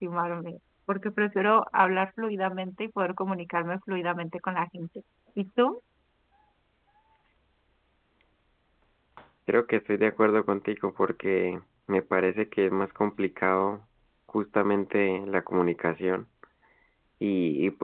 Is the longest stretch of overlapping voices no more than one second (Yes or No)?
Yes